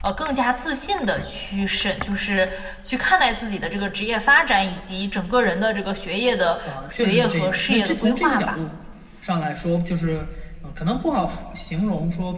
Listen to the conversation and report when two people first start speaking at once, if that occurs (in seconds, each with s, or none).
6.7 s